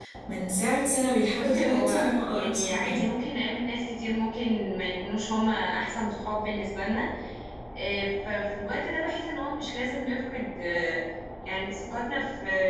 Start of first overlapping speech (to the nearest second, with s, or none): 1 s